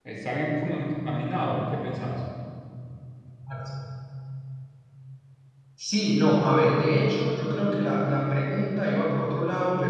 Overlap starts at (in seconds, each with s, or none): none